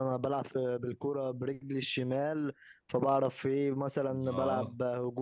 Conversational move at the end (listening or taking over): listening